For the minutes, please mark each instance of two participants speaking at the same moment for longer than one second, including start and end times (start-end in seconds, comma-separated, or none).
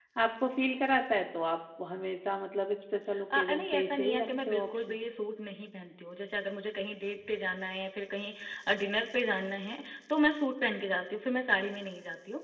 3.4-5.0